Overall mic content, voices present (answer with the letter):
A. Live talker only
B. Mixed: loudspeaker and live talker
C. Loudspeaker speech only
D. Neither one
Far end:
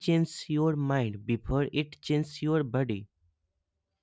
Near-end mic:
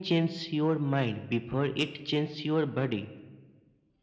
C